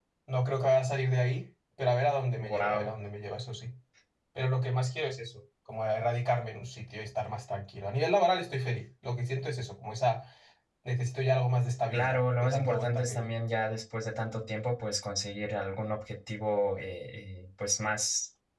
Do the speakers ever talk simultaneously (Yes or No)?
Yes